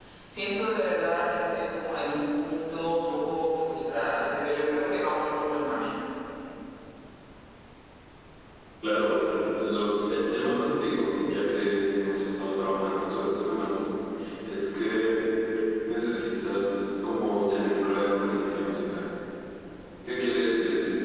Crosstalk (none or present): none